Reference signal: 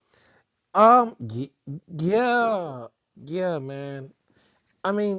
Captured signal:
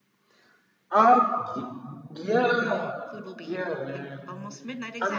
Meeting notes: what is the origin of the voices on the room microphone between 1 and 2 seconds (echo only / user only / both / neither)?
echo only